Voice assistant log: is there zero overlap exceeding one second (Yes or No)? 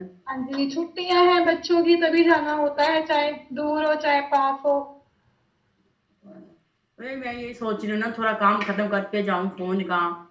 Yes